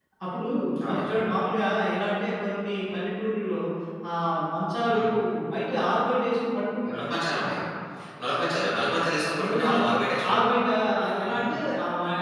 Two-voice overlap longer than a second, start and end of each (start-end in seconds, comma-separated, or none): none